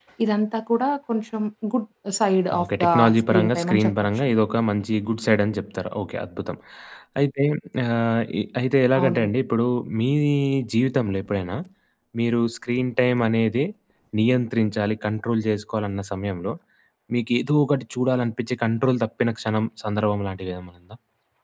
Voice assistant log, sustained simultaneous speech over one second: present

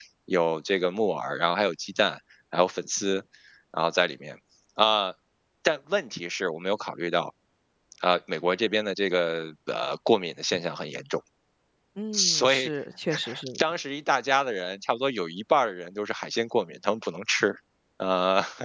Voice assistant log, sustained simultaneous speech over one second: none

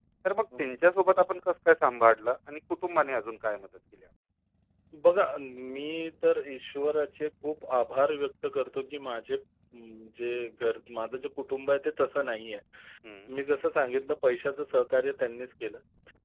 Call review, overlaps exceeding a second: none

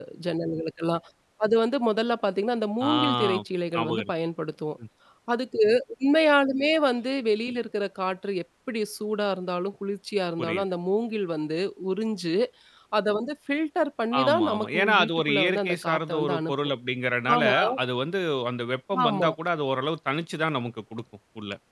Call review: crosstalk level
present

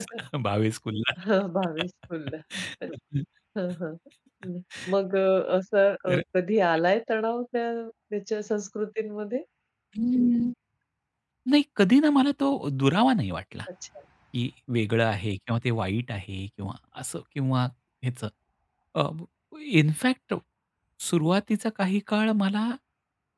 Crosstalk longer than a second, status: none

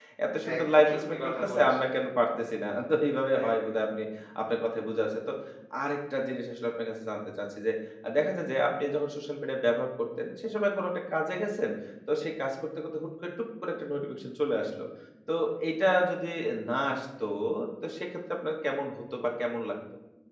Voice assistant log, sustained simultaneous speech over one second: present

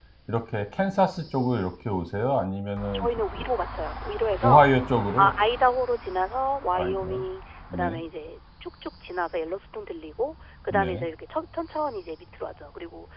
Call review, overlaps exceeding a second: none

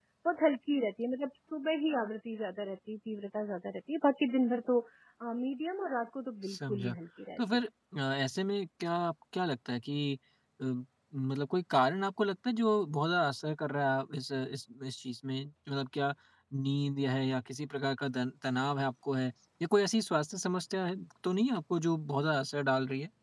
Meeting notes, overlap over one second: none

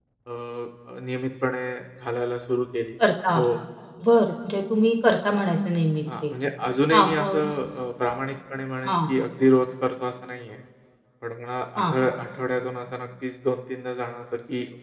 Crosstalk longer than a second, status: none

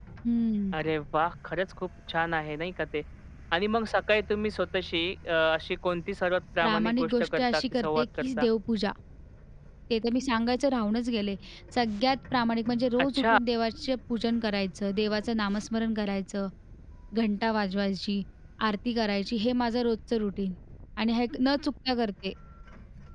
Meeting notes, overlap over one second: present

